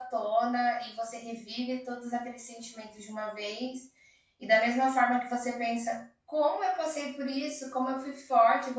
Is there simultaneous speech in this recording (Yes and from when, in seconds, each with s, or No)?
No